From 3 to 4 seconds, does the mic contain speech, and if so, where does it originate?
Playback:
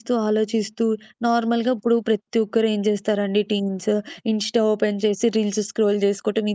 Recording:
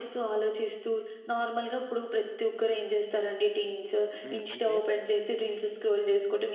echo only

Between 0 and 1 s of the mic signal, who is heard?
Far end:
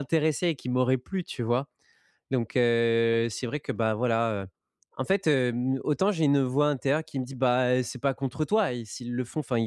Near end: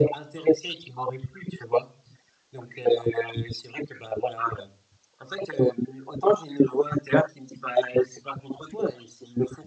echo only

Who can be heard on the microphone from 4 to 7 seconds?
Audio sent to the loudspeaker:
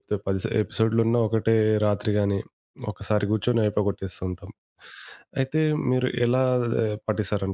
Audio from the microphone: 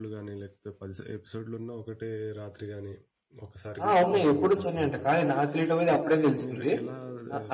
both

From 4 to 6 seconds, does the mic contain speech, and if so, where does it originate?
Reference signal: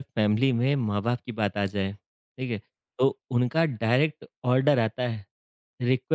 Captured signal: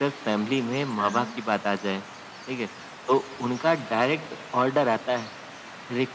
echo only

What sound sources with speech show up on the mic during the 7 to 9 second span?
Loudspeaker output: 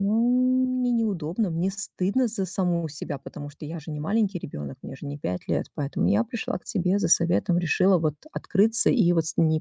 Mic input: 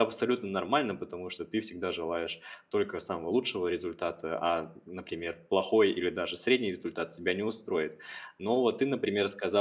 user only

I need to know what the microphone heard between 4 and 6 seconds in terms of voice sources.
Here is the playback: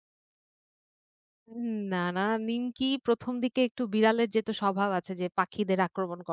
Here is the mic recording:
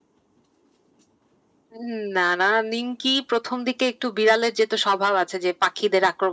echo only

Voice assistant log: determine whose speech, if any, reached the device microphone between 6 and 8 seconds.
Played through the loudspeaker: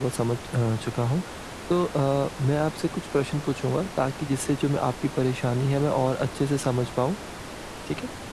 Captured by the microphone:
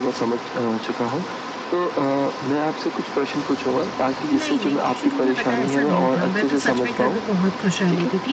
both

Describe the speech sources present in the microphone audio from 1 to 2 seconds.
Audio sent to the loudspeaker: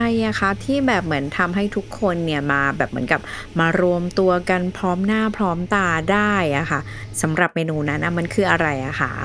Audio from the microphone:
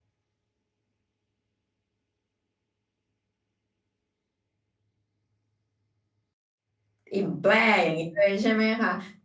neither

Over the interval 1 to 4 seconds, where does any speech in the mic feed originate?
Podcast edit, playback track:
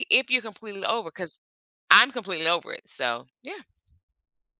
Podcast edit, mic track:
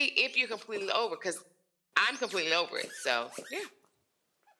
echo only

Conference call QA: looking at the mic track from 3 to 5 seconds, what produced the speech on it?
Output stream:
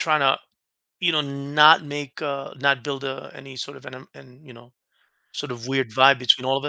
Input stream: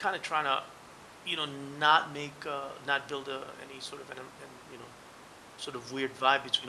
echo only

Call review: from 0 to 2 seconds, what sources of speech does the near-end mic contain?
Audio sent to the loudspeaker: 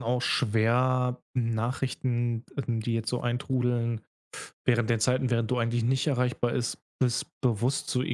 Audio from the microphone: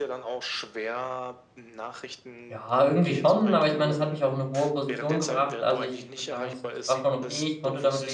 echo only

